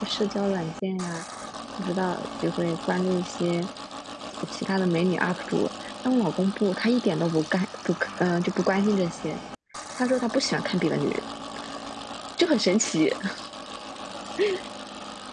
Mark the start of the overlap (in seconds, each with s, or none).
none